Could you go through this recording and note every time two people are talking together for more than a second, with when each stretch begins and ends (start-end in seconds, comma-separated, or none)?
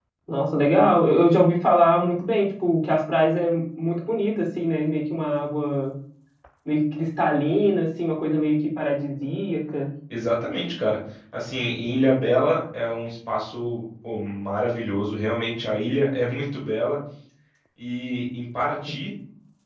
none